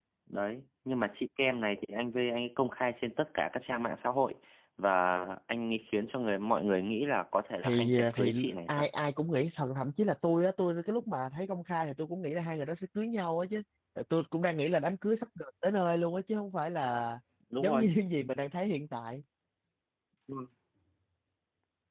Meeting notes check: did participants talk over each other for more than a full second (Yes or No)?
Yes